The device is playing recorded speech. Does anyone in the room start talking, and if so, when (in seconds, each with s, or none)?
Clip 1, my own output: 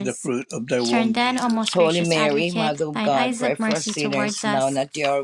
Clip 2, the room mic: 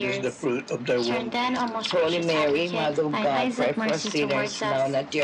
none